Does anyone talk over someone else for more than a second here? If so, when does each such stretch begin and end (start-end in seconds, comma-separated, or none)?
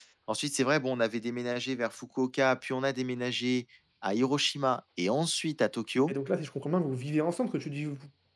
none